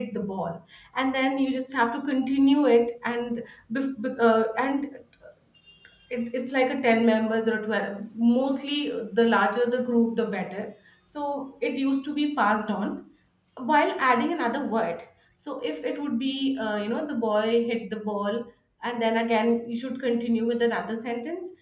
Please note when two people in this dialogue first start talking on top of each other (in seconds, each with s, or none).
none